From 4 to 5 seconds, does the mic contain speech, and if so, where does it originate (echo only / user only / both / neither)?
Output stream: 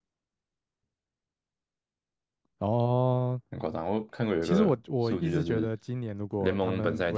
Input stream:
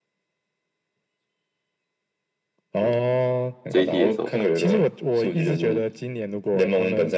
both